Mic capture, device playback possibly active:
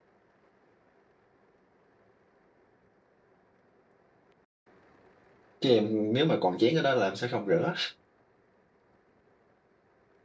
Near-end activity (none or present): present